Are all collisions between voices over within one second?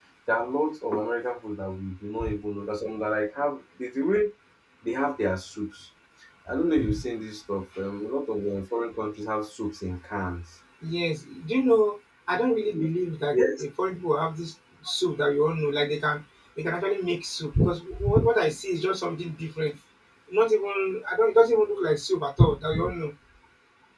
Yes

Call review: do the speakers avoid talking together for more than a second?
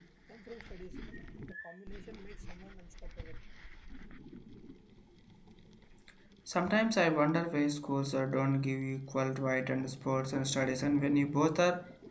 Yes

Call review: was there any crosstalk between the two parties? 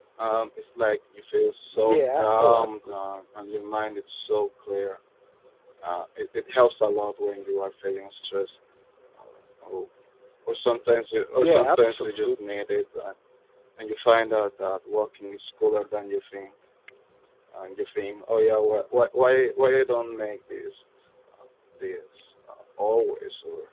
Yes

